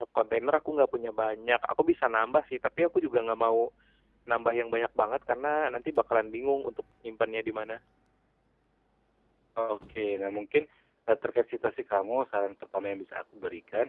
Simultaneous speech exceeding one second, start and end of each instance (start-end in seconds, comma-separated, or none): none